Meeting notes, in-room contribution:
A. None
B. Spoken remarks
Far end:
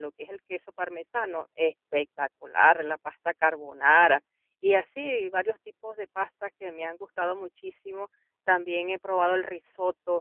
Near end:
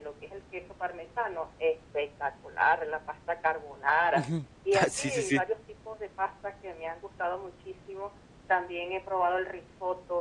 B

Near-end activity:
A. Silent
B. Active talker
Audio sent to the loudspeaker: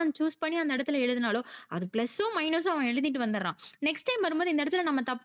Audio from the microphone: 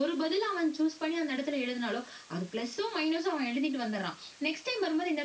A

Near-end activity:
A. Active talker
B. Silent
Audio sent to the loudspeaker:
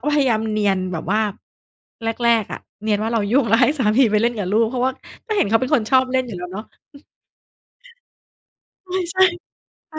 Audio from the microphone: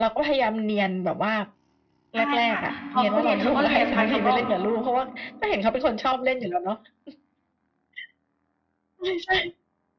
A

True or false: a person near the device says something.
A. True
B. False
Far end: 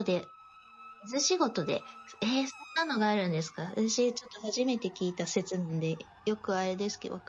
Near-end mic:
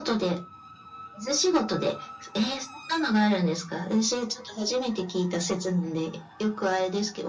B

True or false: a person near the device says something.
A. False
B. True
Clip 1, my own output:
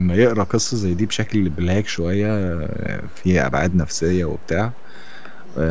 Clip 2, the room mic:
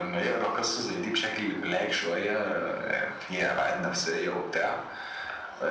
A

